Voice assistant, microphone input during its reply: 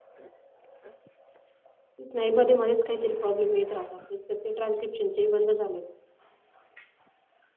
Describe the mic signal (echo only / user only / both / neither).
user only